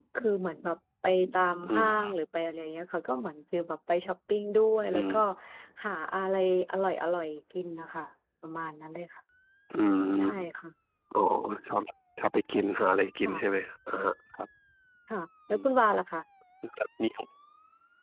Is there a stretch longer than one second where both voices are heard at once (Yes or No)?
No